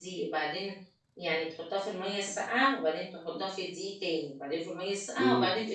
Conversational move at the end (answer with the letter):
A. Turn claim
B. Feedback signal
A